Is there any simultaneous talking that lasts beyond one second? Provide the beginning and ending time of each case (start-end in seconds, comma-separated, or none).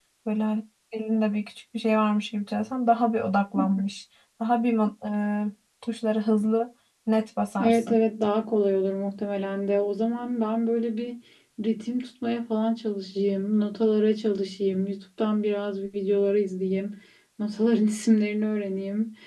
none